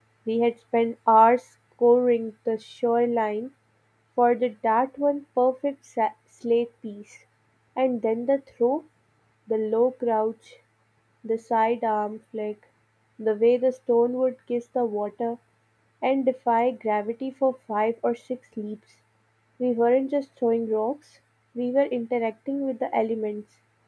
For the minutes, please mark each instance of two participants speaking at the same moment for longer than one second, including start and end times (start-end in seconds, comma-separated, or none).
none